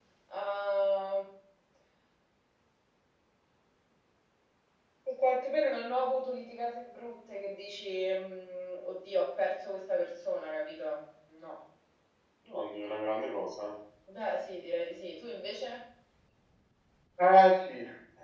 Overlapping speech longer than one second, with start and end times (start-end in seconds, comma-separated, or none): none